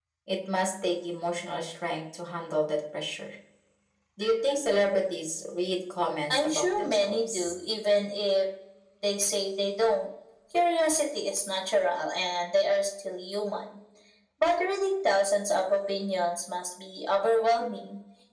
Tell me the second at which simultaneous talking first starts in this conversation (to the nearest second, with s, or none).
6 s